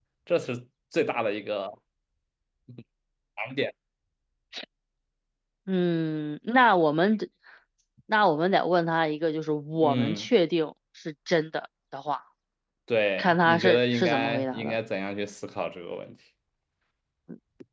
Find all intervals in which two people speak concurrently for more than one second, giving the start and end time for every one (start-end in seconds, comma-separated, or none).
13.2-14.8